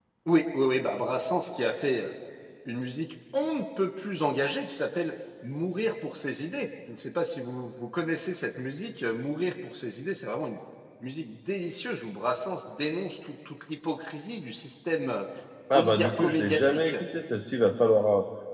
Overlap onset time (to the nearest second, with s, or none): 16 s